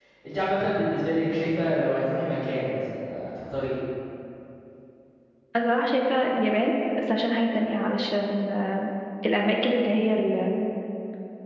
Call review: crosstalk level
none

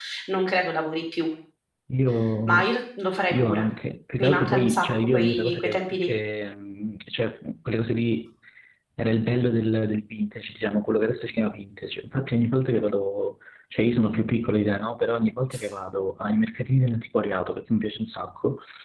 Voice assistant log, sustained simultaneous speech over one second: present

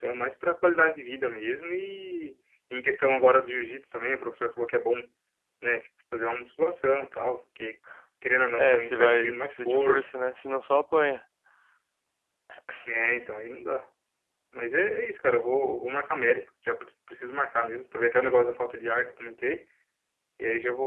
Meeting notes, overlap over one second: present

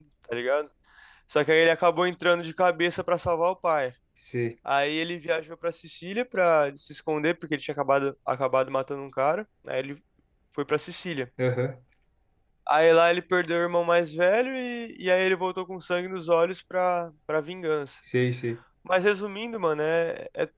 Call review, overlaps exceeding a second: none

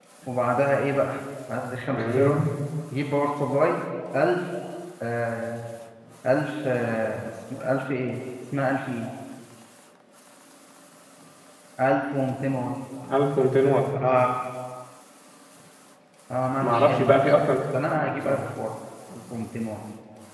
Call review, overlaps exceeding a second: present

